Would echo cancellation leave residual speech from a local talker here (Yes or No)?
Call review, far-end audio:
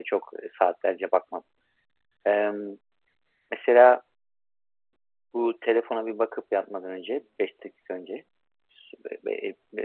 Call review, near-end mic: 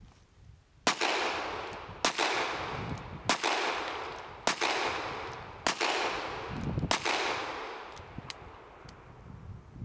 No